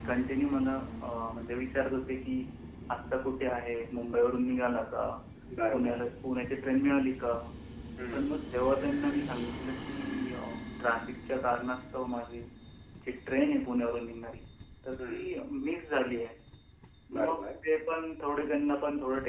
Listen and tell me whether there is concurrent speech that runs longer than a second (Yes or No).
No